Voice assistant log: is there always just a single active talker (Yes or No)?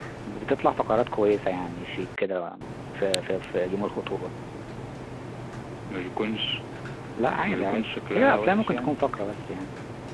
No